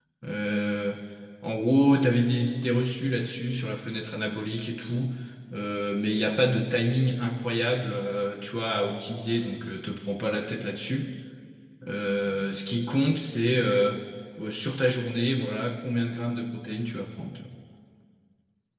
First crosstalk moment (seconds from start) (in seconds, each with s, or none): none